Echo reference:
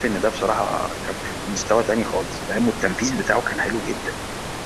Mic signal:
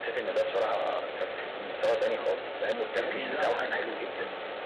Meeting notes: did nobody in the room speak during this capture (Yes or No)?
No